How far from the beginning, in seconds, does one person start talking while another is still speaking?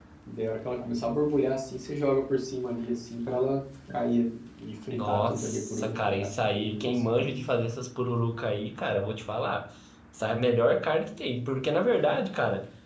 5 s

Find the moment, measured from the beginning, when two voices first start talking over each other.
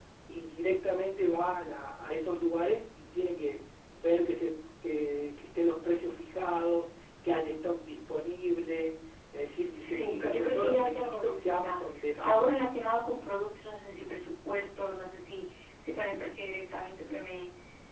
10 s

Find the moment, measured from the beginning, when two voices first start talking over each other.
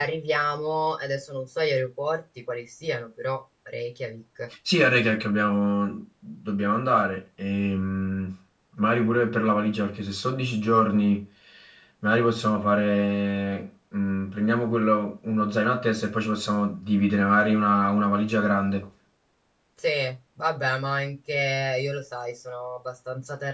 none

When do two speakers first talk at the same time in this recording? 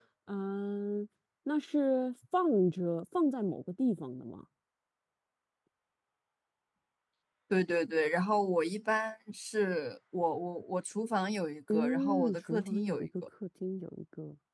12 s

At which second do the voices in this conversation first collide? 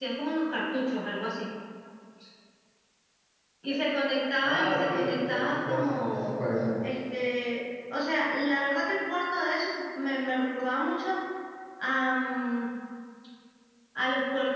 4 s

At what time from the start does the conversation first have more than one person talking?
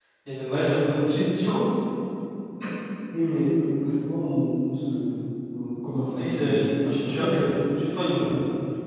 6 s

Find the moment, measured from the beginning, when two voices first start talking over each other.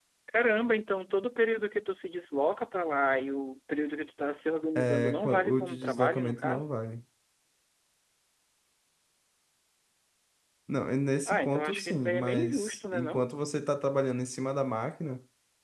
5 s

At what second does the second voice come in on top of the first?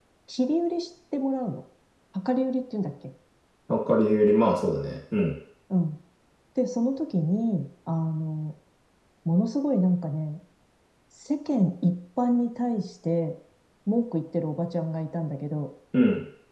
none

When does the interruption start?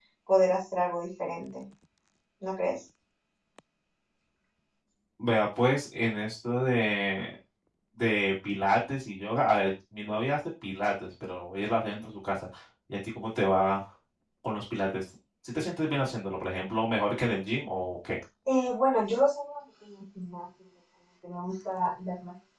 none

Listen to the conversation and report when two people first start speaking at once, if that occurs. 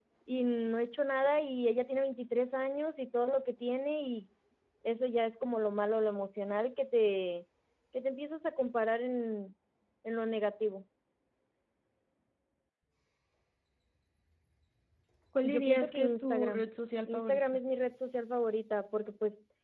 15 s

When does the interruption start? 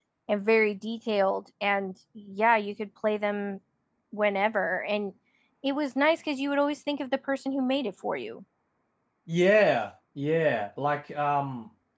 none

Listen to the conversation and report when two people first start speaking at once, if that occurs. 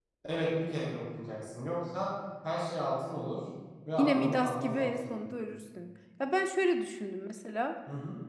4 s

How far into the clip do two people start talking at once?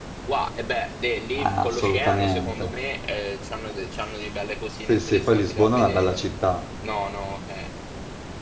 1 s

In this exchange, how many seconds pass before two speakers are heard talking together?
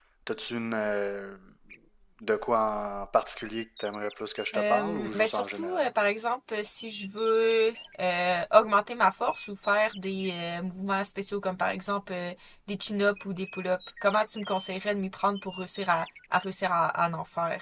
5 s

